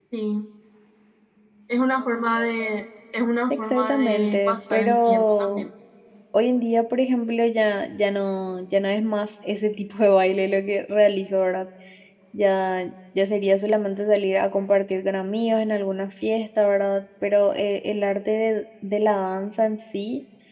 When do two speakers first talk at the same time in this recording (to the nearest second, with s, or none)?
4 s